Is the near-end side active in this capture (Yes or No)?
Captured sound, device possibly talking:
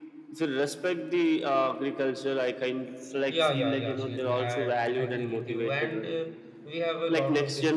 Yes